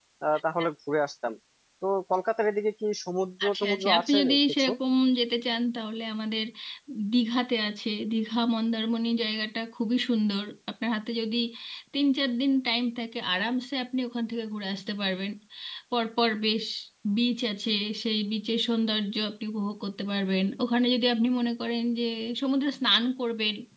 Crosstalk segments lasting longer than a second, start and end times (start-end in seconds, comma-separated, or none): 3.5-4.7